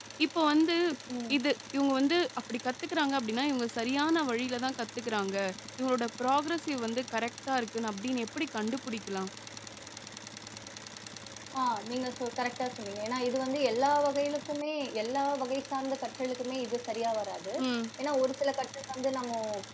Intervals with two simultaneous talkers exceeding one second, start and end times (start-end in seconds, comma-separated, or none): none